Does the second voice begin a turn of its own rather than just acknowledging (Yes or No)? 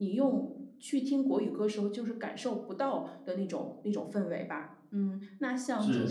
No